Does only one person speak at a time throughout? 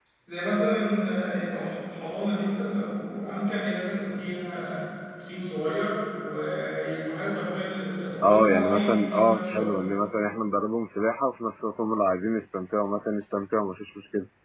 No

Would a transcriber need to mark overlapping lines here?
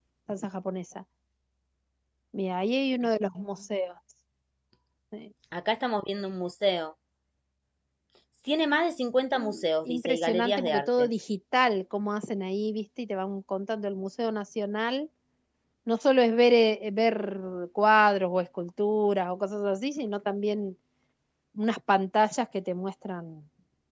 Yes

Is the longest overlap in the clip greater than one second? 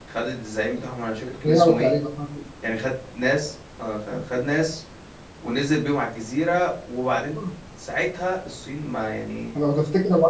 No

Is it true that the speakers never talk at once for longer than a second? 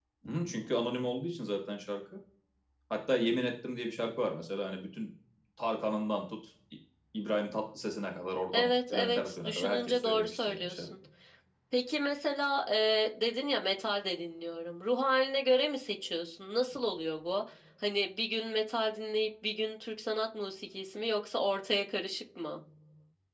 No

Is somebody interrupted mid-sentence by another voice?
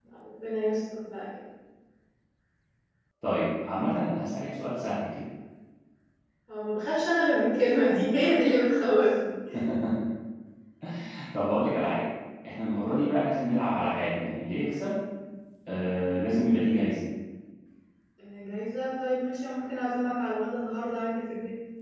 No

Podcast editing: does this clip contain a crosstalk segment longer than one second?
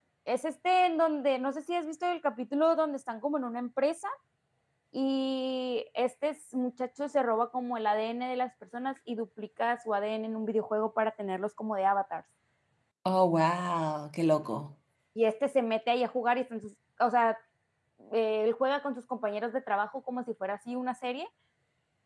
No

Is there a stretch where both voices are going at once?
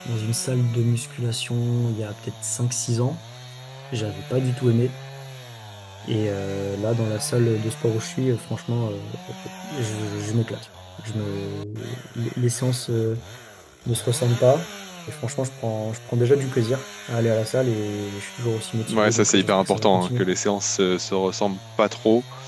Yes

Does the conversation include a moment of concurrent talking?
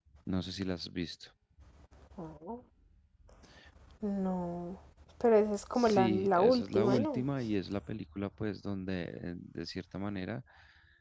Yes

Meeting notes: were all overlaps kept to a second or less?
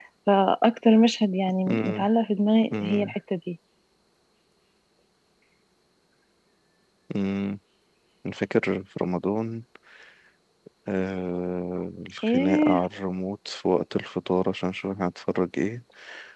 Yes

